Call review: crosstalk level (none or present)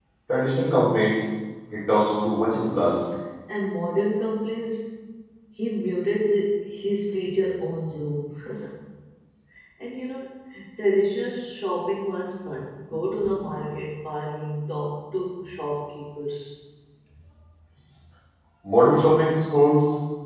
none